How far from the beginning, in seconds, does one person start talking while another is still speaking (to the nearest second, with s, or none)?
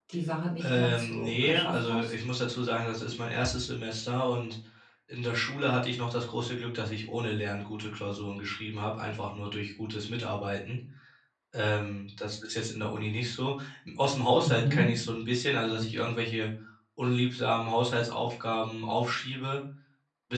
1 s